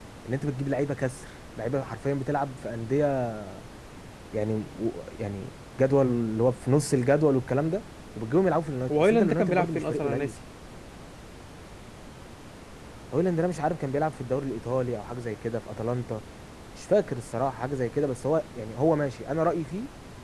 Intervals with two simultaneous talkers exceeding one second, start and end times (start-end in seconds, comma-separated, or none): 8.9-10.3